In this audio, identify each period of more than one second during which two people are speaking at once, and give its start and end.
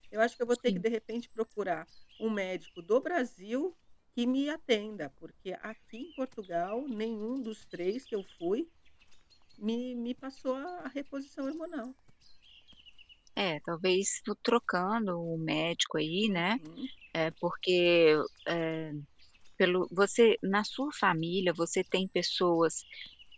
none

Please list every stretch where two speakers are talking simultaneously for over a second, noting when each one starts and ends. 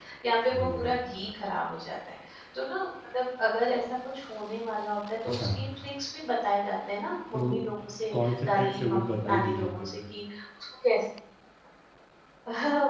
8.1-9.9

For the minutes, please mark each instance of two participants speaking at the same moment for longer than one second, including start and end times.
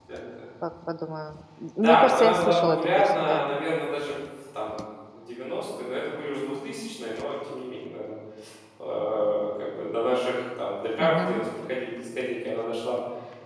1.8-3.4

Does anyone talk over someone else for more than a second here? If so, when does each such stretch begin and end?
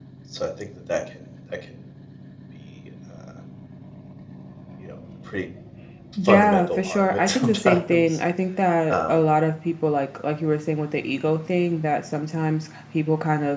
6.2-8.1

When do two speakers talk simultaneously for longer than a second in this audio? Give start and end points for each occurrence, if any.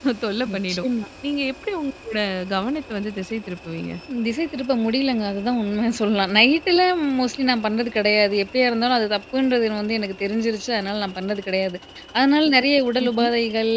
none

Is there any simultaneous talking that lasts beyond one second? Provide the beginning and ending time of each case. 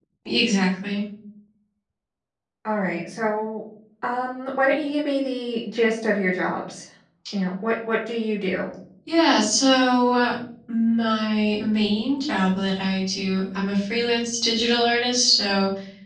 none

